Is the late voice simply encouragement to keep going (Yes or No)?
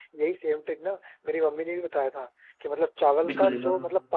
Yes